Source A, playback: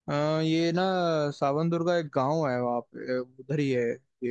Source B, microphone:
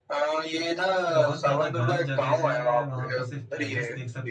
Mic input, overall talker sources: both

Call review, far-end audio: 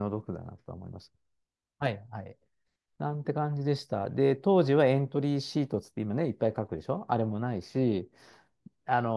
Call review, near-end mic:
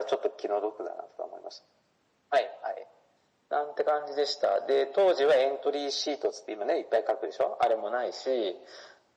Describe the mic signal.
echo only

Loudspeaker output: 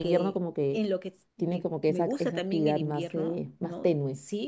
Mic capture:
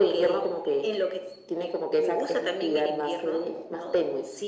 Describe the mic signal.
echo only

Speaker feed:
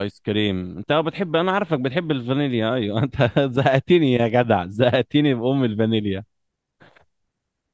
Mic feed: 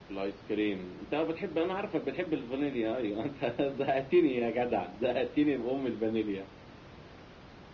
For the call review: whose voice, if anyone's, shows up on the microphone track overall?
echo only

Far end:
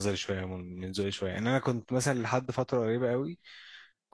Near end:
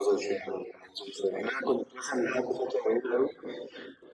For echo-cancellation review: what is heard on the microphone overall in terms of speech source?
echo only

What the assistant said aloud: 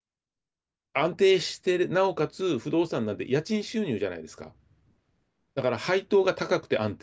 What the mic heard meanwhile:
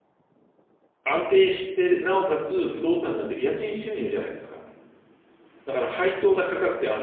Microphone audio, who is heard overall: echo only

